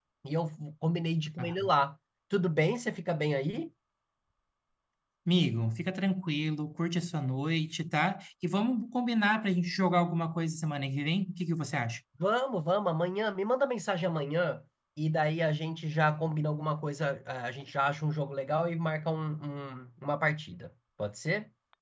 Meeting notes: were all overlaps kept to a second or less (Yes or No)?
Yes